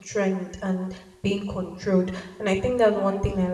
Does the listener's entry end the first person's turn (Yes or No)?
No